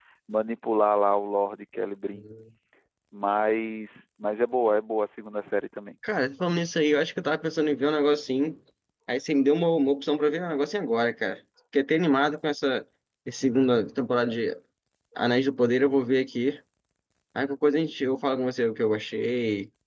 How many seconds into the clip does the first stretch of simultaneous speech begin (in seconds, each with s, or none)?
none